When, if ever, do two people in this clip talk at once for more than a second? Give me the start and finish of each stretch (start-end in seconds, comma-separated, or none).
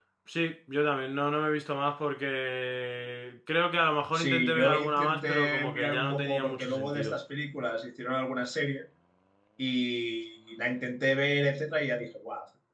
4.1-7.1